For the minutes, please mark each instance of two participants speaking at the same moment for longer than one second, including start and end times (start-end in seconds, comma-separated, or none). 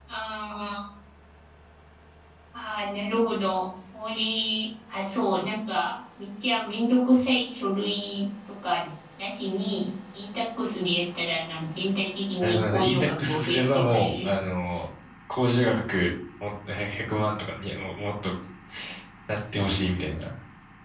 12.4-14.3